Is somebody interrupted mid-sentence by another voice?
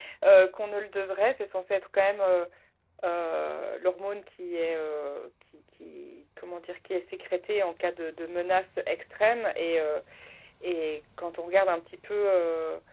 No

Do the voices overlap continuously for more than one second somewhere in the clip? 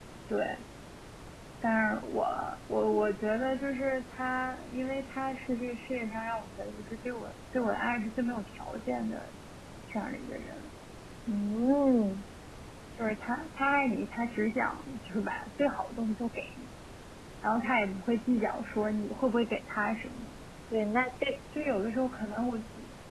No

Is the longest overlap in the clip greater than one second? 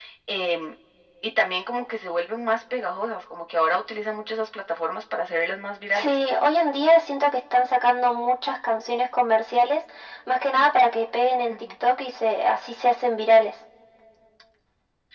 No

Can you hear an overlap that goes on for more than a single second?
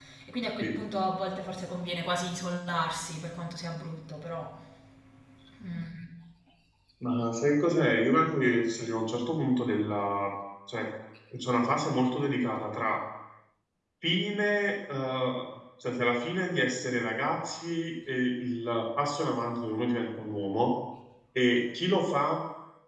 No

